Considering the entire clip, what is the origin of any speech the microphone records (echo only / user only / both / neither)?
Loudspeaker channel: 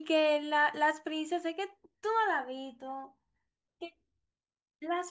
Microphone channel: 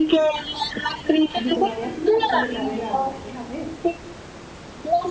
both